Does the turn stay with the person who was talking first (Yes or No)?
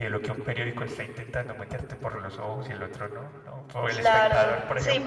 No